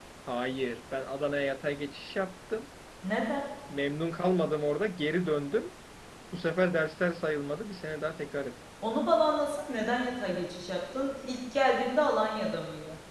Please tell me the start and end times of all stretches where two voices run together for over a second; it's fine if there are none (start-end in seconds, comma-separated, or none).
none